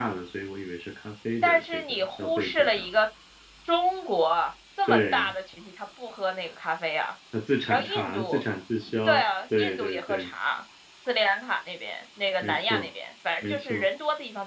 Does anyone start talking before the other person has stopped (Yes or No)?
Yes